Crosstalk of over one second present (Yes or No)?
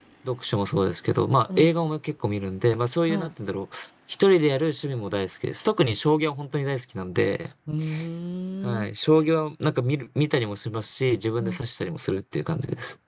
No